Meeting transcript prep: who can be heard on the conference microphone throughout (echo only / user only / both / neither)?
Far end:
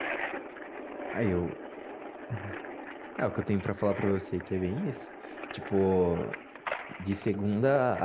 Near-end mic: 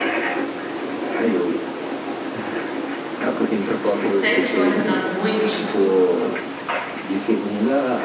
both